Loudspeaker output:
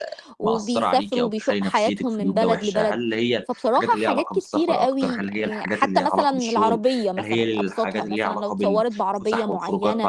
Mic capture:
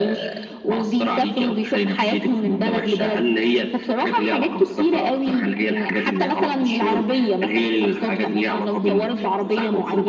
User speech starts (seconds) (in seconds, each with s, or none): none